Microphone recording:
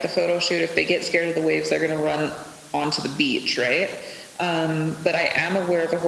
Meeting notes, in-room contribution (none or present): none